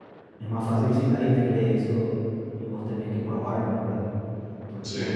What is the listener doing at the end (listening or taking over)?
listening